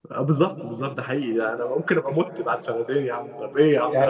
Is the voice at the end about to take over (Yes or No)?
Yes